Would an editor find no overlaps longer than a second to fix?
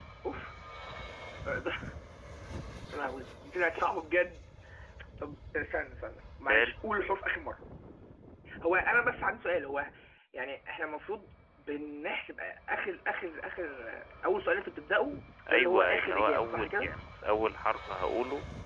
No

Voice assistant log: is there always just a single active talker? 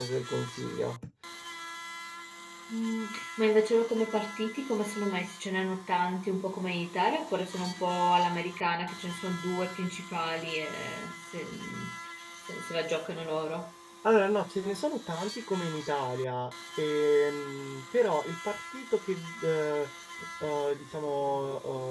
Yes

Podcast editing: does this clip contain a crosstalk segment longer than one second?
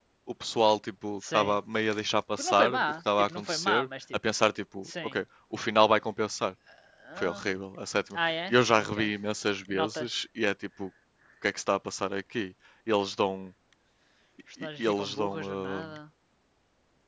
Yes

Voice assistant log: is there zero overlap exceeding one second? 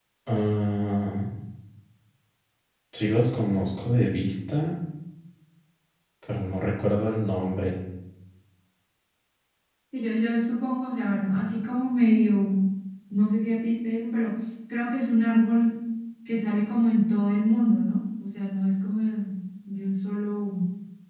Yes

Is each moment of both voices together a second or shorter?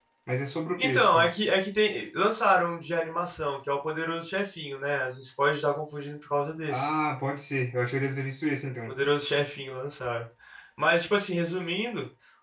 Yes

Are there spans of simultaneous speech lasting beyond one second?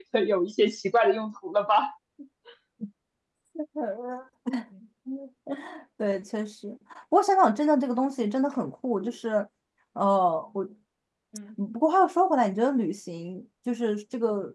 No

